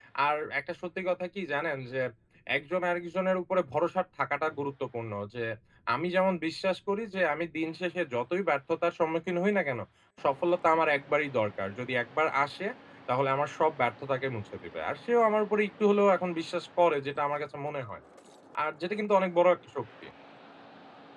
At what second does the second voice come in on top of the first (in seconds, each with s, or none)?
none